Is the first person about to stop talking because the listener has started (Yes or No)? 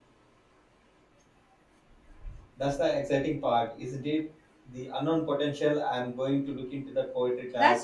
Yes